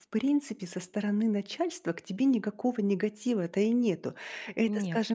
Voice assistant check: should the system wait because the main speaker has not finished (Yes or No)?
Yes